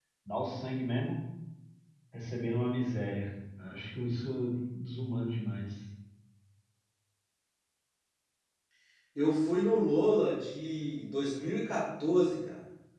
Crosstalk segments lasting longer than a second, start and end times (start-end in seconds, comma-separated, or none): none